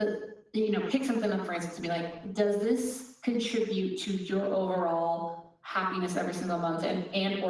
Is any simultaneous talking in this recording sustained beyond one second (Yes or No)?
No